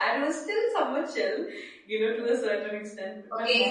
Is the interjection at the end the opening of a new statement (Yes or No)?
Yes